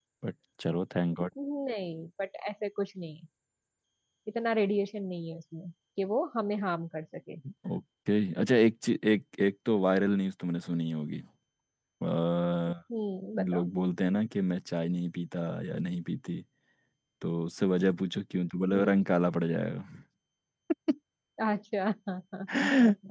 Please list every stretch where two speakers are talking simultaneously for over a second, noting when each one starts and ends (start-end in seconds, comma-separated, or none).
none